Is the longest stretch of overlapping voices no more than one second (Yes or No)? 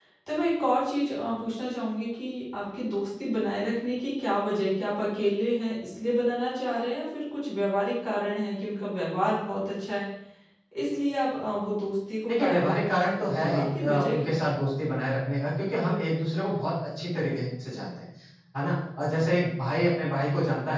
No